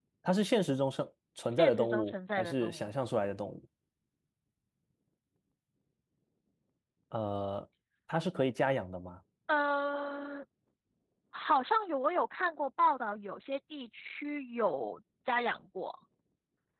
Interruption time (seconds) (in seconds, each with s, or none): 1.4 s